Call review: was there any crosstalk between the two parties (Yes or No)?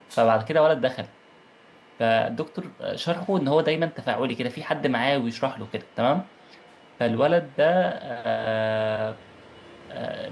No